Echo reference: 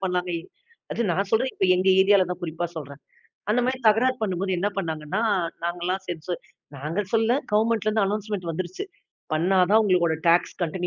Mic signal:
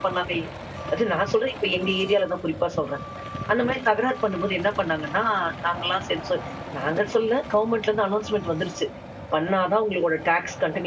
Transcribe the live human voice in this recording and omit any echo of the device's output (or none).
none